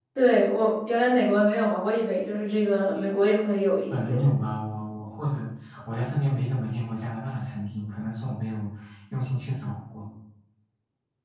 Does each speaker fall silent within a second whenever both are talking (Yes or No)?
Yes